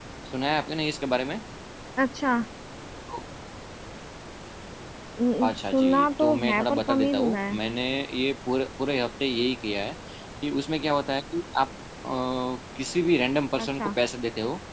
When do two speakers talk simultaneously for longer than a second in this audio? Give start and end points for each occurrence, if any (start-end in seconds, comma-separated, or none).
5.4-7.6